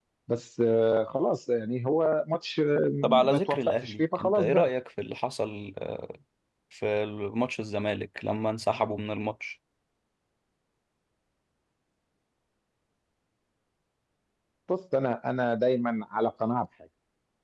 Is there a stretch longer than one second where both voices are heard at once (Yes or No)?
Yes